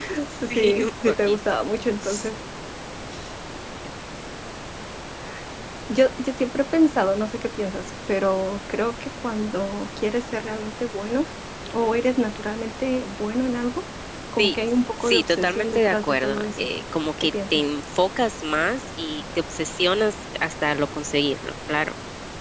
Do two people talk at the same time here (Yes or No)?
Yes